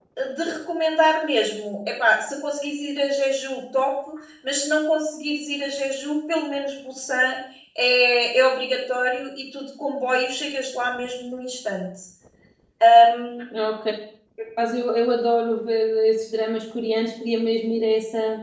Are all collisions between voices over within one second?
Yes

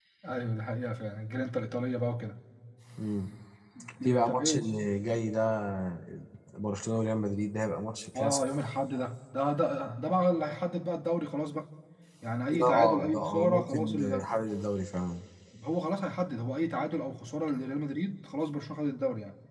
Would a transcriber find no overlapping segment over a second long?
No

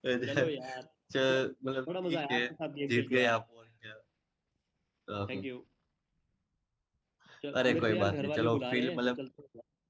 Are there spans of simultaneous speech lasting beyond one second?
Yes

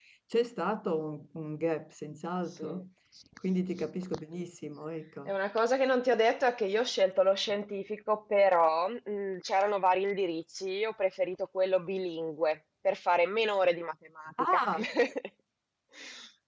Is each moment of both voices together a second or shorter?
Yes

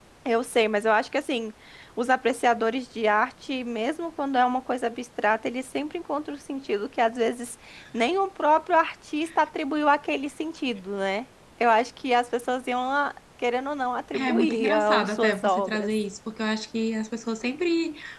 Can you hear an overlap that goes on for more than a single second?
Yes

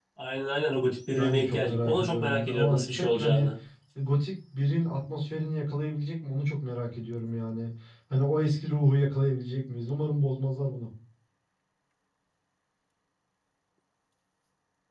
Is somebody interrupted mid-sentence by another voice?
Yes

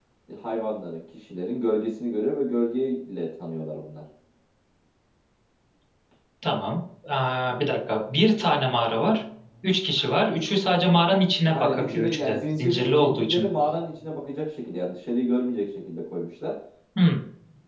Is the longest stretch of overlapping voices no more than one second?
No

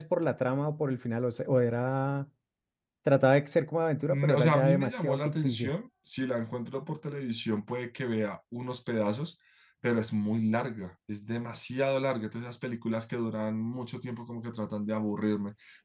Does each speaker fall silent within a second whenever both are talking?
No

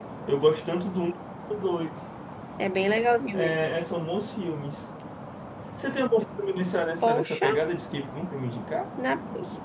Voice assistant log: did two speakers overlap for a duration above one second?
No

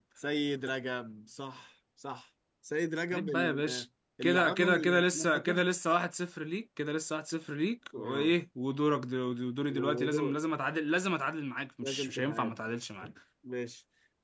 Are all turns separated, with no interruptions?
No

